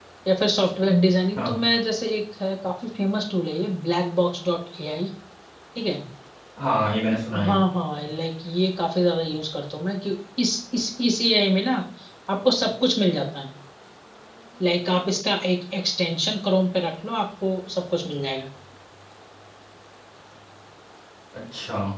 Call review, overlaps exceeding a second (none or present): none